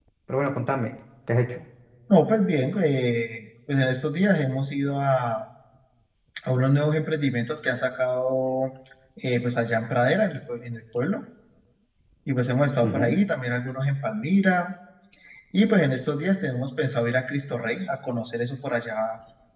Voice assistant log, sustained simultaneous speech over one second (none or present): none